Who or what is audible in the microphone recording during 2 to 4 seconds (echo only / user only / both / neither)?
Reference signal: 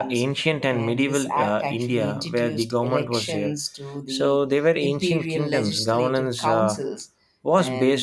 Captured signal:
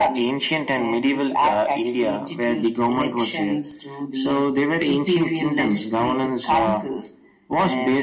echo only